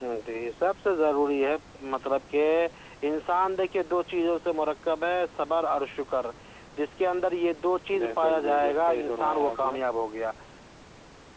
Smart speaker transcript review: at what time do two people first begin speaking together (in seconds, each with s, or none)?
7.9 s